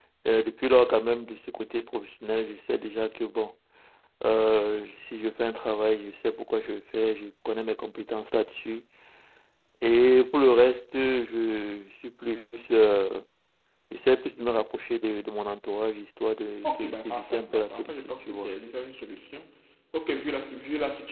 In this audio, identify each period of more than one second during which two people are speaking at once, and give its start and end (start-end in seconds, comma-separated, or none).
16.6-18.5